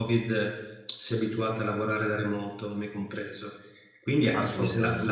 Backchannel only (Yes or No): Yes